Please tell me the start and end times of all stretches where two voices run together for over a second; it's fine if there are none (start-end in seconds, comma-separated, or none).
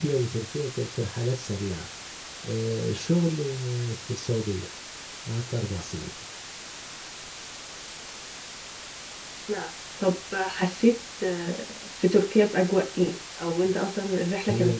none